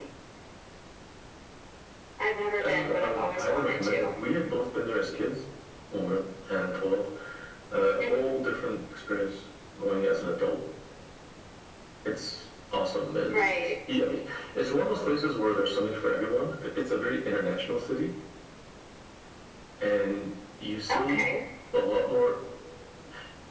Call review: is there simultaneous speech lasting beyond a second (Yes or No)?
Yes